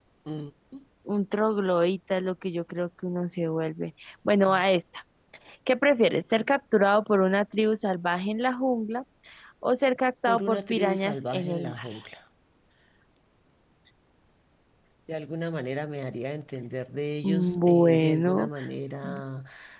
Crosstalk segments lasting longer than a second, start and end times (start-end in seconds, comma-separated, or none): 10.3-11.8, 17.2-18.5